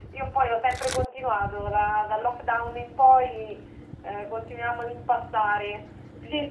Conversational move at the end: taking over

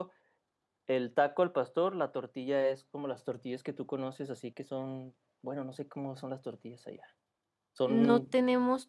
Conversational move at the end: taking over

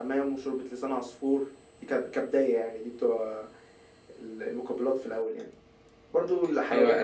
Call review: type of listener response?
taking over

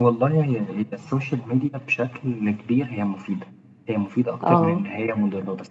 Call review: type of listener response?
listening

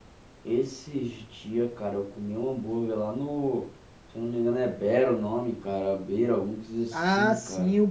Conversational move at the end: taking over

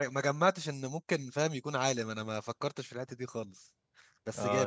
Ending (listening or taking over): taking over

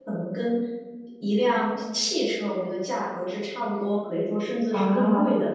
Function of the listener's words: listening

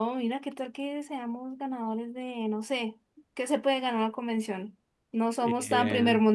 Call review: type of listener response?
listening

